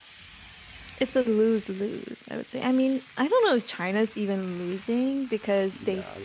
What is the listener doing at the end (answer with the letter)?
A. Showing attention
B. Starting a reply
A